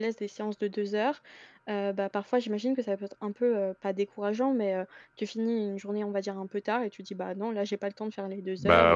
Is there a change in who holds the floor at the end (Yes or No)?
No